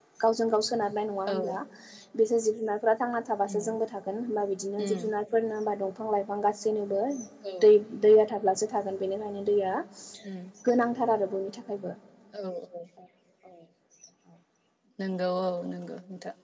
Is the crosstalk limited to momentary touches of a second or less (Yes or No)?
Yes